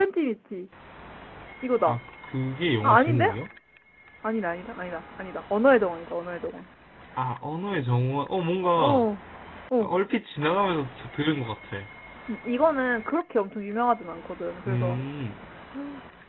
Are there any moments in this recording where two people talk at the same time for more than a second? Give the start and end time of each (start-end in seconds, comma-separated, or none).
none